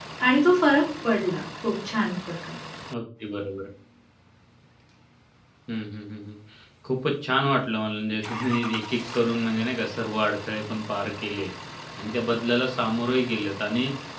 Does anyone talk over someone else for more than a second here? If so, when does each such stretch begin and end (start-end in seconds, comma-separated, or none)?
none